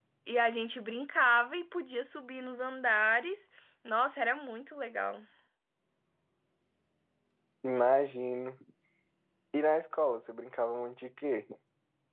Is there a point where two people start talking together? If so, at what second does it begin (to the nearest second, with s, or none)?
none